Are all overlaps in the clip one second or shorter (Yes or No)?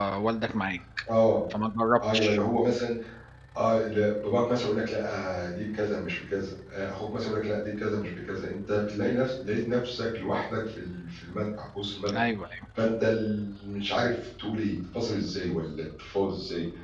Yes